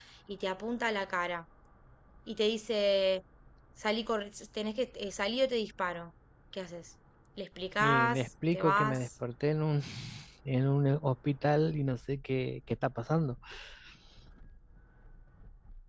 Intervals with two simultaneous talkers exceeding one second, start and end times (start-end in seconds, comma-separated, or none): 7.8-9.1